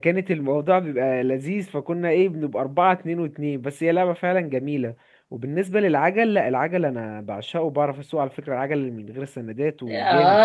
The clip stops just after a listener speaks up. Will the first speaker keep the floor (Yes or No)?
No